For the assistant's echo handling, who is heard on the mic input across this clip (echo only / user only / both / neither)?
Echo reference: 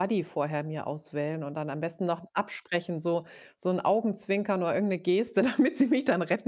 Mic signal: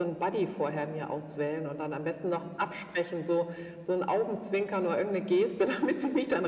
echo only